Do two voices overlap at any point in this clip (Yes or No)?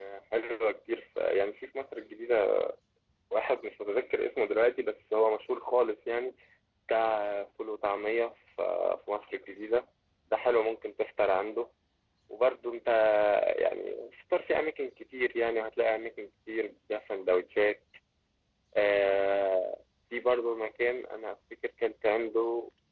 No